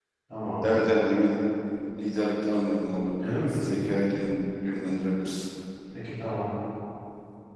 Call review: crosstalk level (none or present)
none